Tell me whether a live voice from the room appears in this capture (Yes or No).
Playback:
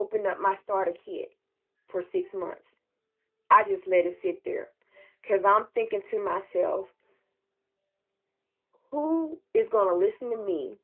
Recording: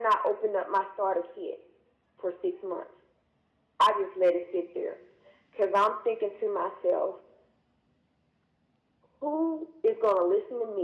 No